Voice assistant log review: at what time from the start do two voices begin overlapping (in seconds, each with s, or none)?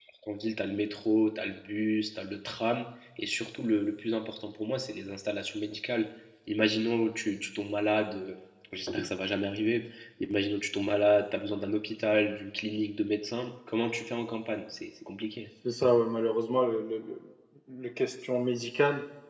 none